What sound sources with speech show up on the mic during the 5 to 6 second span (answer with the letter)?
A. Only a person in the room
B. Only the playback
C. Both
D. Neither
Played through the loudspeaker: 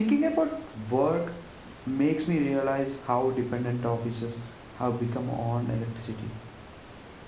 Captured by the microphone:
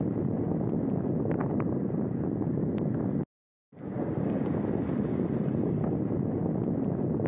D